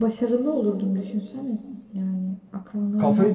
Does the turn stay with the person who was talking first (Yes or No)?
No